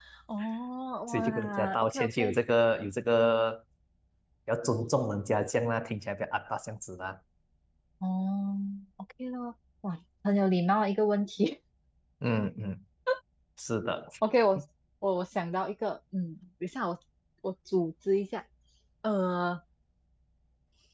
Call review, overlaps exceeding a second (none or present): present